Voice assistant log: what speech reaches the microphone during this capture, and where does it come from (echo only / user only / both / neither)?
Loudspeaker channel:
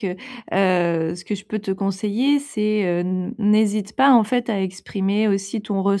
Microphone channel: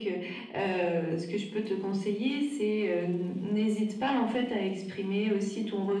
echo only